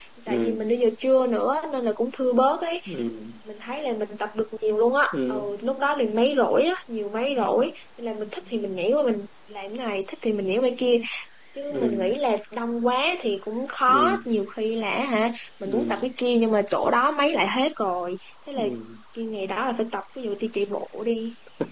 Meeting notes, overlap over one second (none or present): none